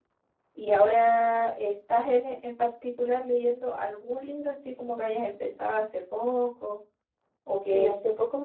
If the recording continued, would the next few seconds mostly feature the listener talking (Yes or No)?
Yes